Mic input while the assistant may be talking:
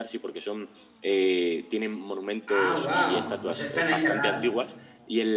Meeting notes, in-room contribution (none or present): present